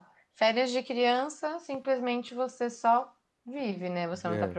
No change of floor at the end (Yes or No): Yes